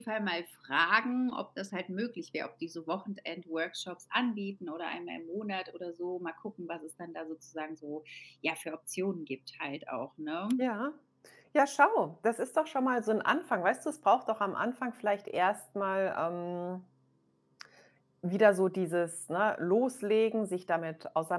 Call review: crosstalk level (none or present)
none